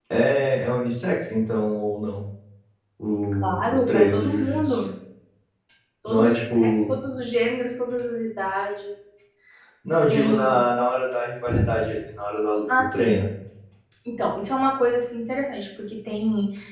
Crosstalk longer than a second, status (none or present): present